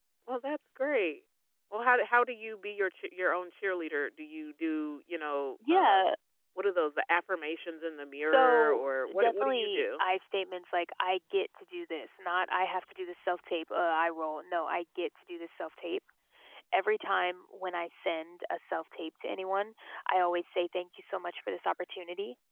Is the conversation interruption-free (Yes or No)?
No